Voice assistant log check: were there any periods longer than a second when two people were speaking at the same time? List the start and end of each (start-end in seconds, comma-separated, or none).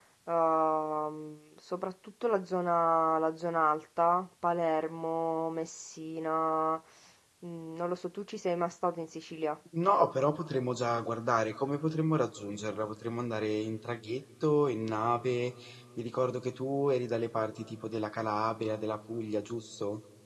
none